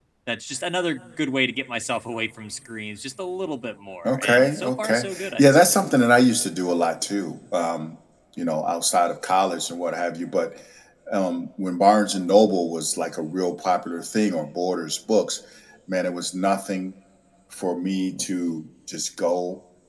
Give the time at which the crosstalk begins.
4.0 s

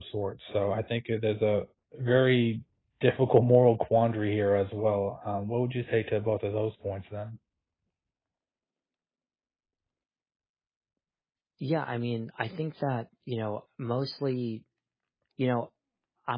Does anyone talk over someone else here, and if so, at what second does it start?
none

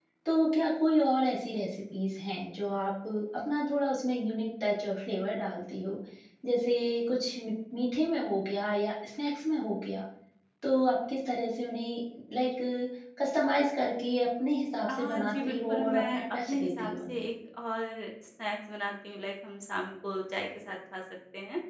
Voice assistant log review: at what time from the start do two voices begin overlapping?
14.9 s

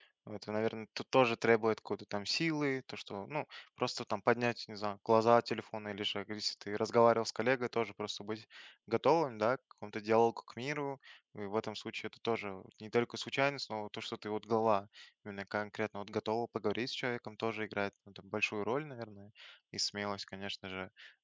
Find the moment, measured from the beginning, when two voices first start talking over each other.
none

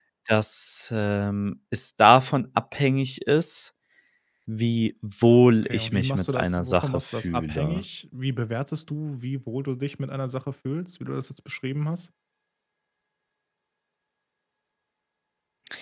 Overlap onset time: 5.6 s

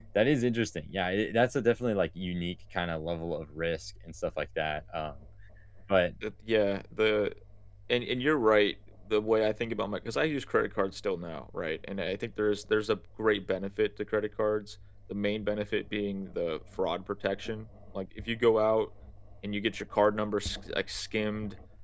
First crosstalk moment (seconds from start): none

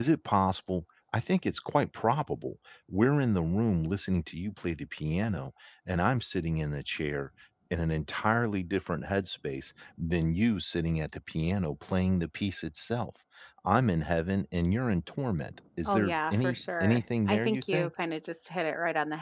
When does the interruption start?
15.8 s

